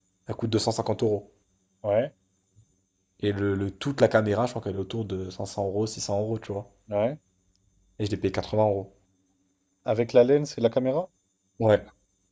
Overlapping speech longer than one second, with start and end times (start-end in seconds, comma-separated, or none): none